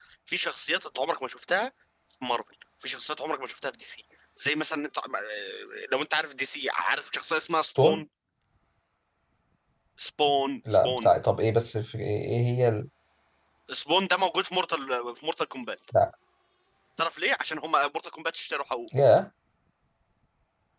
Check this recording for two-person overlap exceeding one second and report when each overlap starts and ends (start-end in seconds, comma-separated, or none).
none